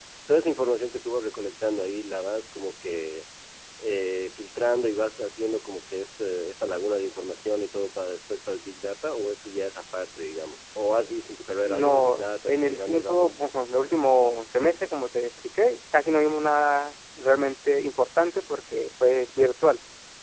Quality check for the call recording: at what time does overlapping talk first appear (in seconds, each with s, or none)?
11.6 s